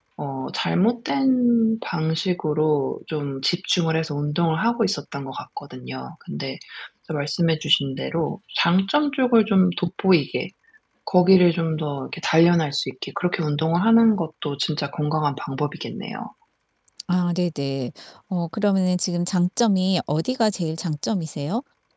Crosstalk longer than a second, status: none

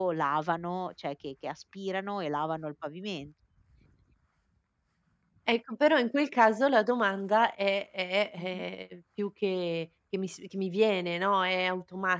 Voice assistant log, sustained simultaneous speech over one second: none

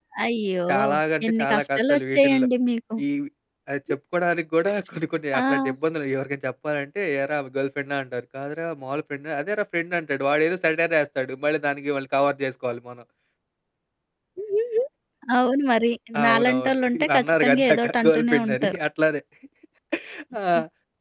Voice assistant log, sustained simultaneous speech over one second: present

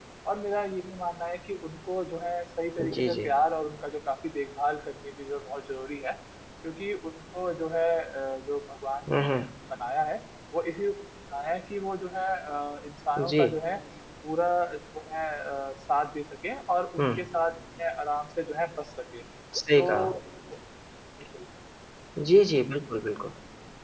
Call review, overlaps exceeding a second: none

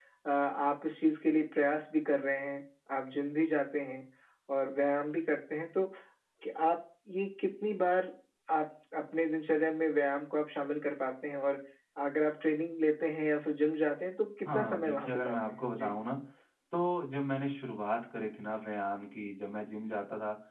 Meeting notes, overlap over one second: present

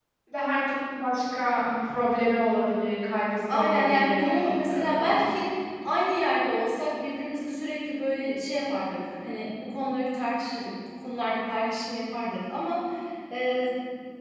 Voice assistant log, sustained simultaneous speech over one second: present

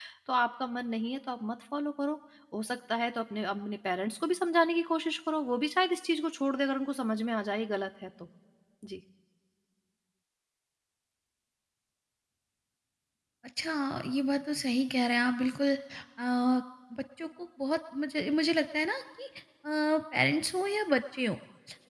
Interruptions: none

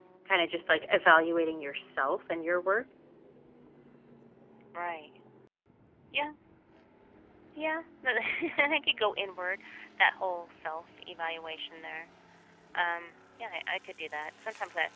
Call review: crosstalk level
none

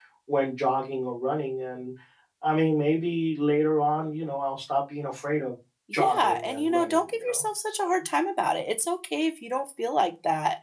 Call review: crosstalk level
present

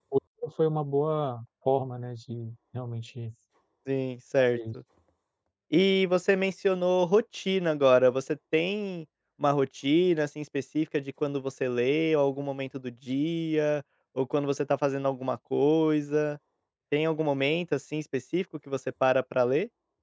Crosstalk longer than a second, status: none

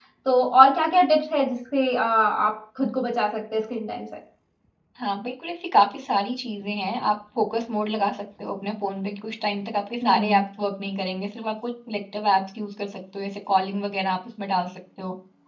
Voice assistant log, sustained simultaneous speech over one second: none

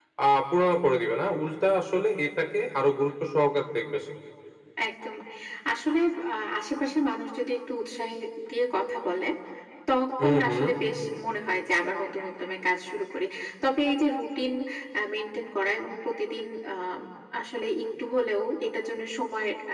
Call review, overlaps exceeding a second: none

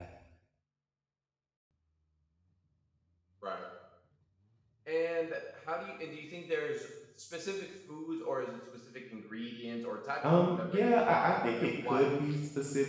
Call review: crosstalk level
present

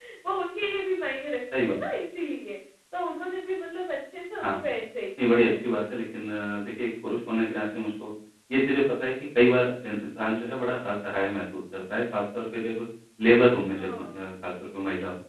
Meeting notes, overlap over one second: none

